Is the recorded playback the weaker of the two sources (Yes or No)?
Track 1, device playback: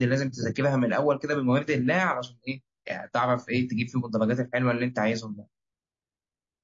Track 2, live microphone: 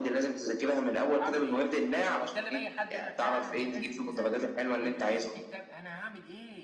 No